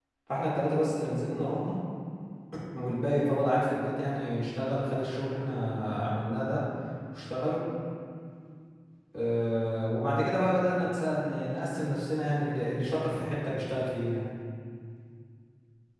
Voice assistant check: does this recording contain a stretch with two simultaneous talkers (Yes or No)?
No